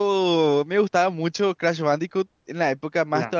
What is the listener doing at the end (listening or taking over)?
listening